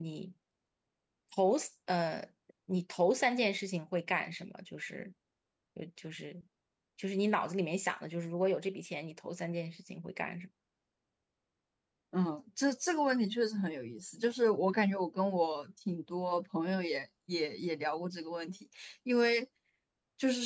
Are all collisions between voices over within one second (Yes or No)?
Yes